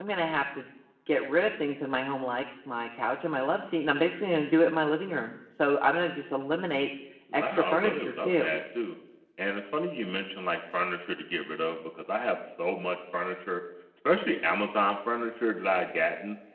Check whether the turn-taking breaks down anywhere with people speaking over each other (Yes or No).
Yes